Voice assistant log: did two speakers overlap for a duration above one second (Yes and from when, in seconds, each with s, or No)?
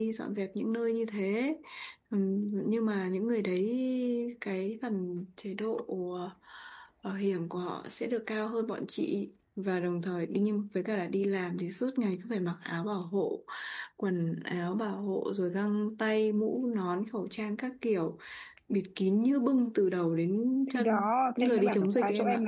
Yes, from 20.7 s